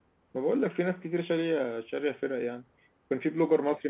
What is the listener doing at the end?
listening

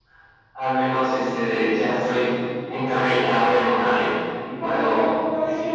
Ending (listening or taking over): taking over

